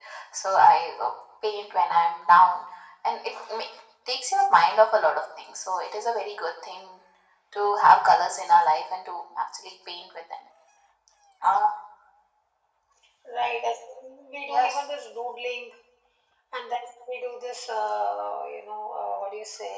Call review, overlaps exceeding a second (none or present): none